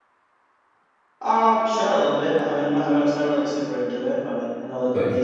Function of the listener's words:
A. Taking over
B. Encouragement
A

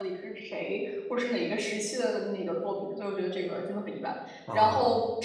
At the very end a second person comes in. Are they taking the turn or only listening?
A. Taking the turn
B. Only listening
B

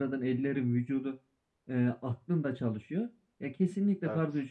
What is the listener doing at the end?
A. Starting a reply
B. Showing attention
B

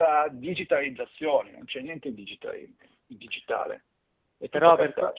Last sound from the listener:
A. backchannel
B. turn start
B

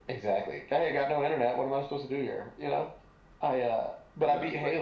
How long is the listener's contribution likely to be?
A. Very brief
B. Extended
A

